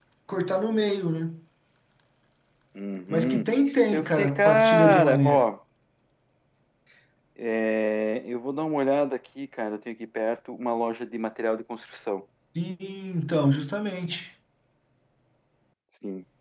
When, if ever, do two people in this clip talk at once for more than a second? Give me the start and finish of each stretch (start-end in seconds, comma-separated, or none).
3.9-5.5